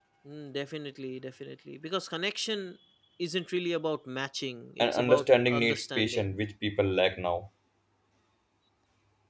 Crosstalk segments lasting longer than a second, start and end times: 4.8-6.3

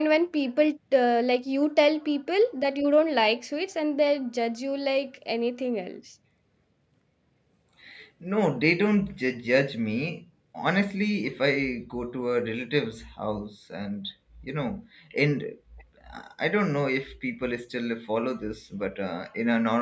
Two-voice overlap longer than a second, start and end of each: none

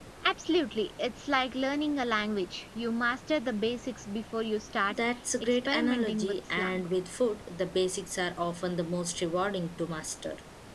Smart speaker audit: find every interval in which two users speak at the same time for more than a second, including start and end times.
5.4-6.8

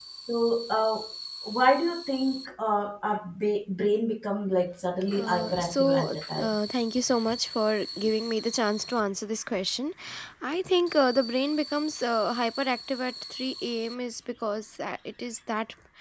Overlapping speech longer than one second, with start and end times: 5.1-6.5

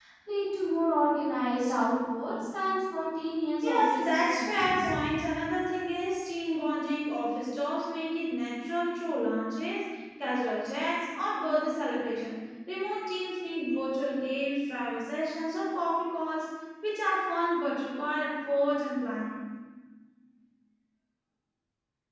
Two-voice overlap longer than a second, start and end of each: 3.6-4.9

